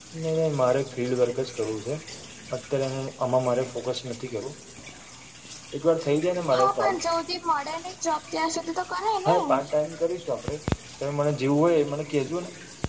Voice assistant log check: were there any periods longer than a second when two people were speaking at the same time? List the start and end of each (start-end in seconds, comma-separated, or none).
none